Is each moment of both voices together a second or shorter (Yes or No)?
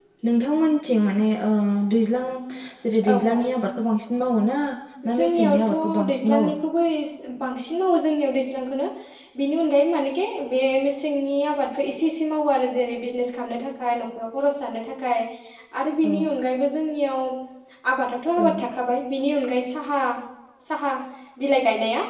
No